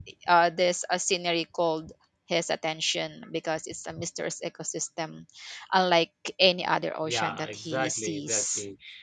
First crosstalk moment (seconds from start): 7 s

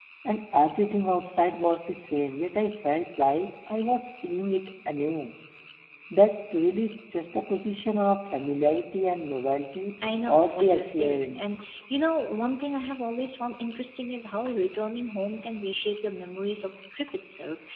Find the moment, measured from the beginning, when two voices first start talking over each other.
10 s

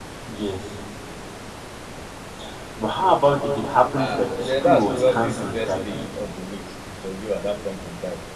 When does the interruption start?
4 s

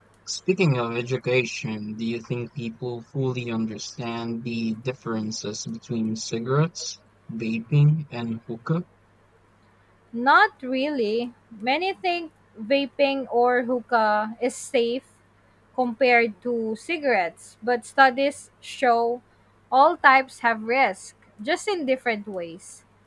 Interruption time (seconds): none

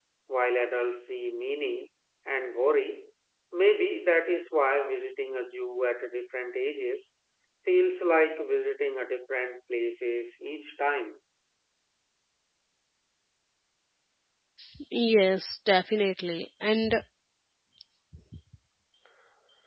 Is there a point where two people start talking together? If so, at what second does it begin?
none

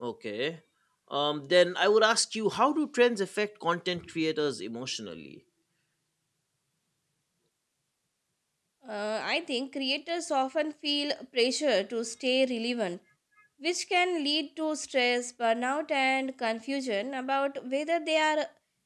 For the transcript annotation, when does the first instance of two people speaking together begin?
none

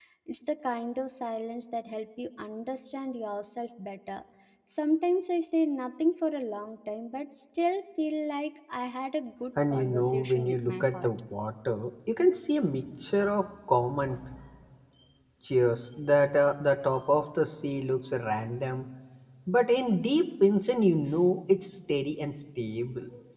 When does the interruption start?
10 s

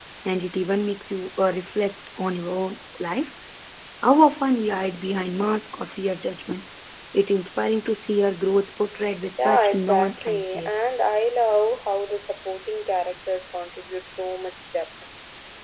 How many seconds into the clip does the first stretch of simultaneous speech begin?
9 s

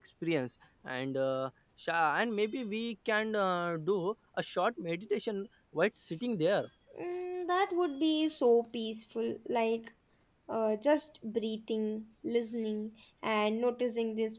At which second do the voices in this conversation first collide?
none

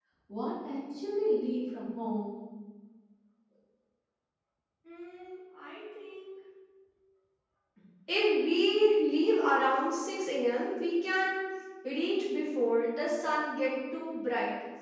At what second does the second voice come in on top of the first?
none

